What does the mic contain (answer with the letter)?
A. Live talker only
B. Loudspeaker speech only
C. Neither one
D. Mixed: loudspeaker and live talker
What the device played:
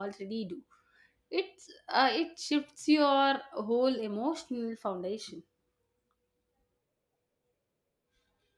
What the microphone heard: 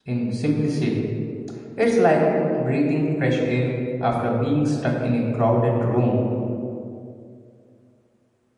A